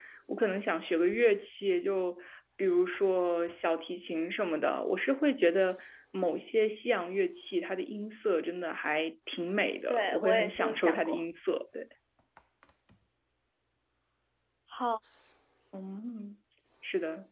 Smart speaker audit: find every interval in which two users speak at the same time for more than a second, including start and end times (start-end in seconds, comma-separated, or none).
9.9-11.2